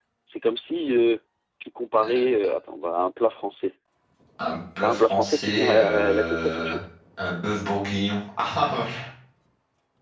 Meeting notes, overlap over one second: present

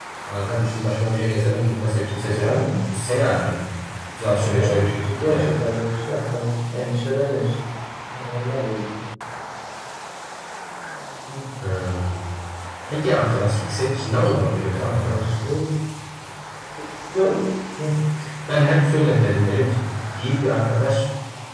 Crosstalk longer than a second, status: present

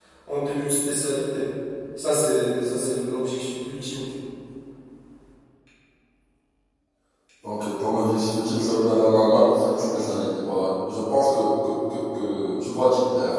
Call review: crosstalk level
none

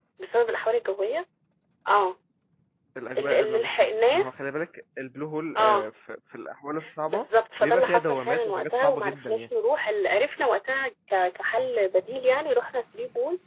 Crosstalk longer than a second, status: present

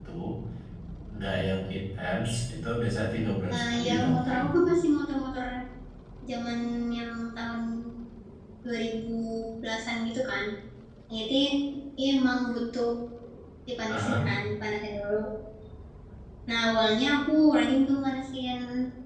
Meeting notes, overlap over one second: present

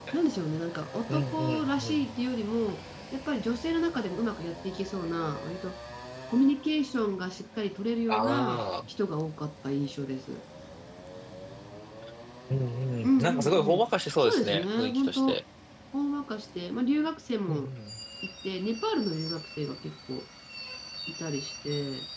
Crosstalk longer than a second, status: present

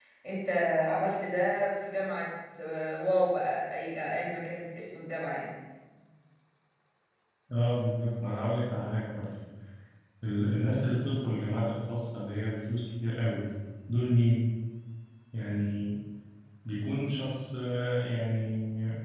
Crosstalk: none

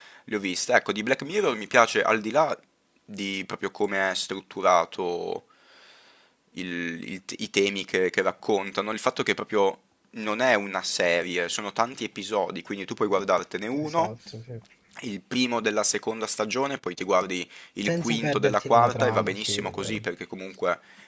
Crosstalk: present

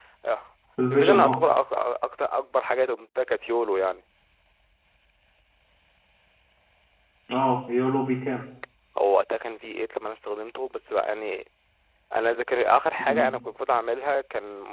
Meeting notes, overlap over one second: none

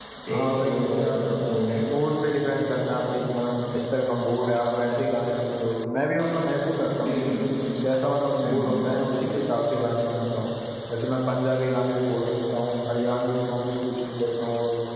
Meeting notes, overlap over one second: present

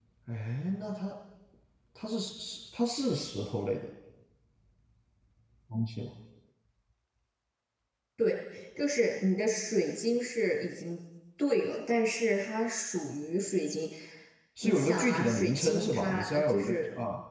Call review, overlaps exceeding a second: present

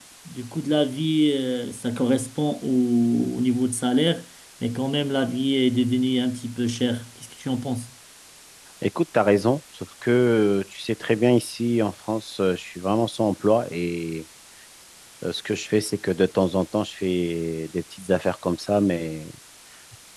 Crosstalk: none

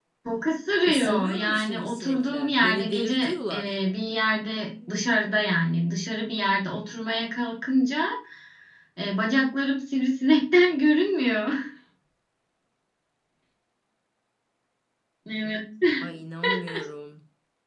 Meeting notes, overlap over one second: present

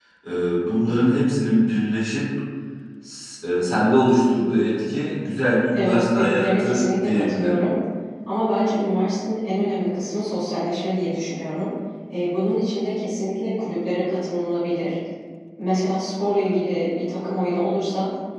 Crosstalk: present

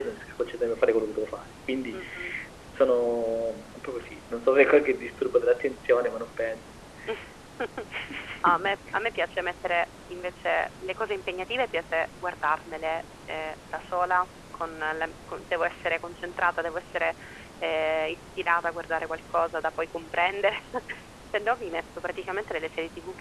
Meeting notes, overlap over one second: none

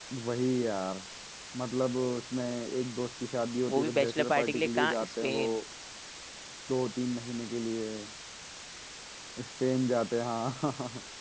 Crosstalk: present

